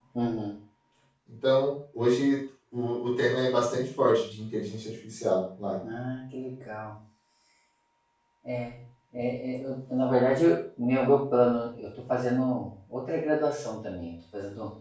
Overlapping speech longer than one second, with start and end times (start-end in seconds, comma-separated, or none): none